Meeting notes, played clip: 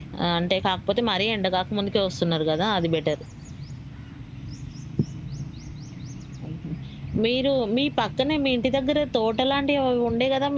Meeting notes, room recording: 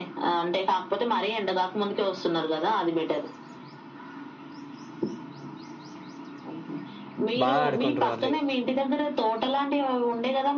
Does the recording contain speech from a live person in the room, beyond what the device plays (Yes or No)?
Yes